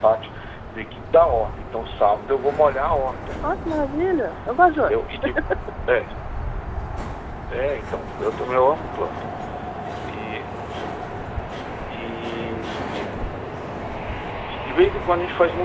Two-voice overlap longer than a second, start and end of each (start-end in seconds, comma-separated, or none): none